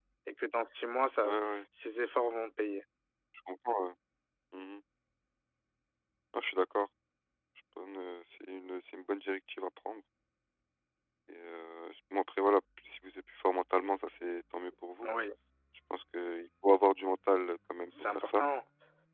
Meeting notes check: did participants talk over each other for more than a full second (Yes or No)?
No